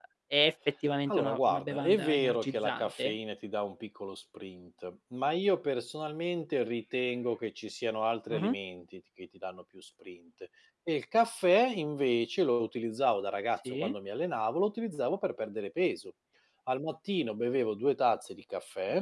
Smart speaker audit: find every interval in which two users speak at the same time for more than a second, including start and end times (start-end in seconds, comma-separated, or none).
1.1-3.2